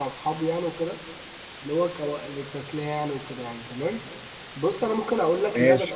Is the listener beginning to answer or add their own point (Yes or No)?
No